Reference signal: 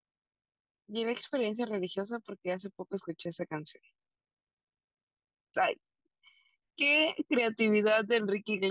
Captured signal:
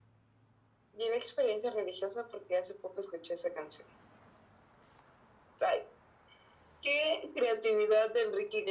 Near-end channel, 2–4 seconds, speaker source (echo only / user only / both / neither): echo only